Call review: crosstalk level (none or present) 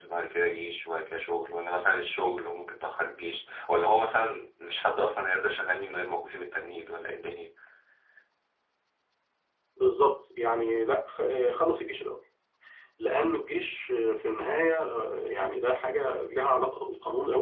none